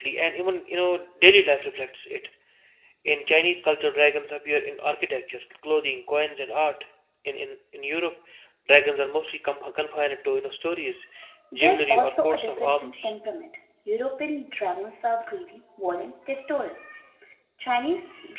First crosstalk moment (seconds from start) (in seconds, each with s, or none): 11.5 s